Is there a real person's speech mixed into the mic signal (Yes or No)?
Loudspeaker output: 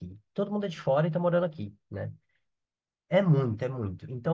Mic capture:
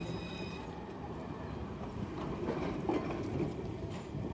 No